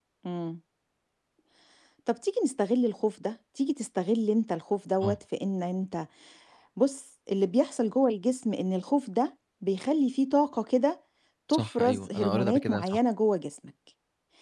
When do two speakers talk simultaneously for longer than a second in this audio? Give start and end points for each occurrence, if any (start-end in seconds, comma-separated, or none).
11.5-13.0